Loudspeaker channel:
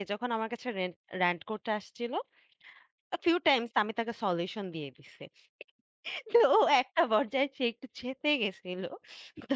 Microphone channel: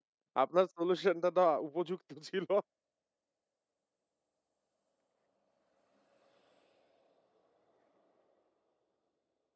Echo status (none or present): none